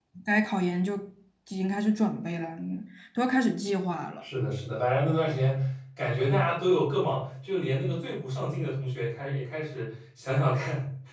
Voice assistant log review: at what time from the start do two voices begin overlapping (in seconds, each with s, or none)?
none